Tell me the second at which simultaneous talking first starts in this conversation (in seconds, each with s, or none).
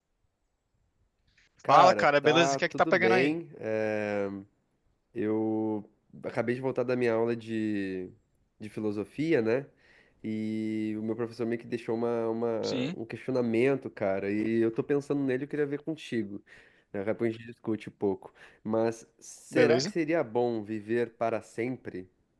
1.7 s